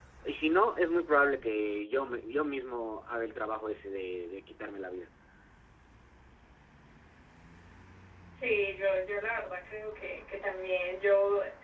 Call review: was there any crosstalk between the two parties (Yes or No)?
No